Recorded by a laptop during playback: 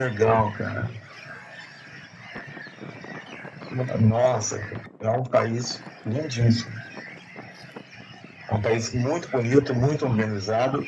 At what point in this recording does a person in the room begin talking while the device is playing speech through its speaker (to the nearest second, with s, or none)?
none